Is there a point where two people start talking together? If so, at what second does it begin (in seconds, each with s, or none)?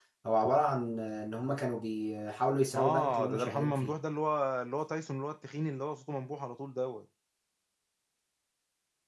2.7 s